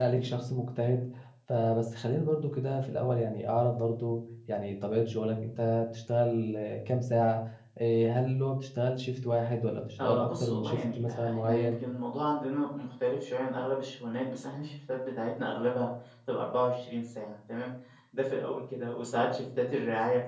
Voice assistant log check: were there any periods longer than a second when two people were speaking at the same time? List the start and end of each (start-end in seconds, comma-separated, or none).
10.0-11.7